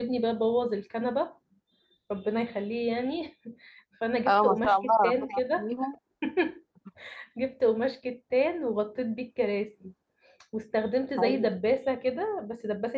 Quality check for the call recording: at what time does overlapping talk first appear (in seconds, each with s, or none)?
4.3 s